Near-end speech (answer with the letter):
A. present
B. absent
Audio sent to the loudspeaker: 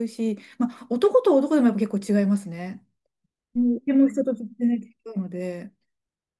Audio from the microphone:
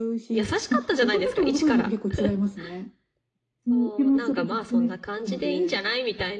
A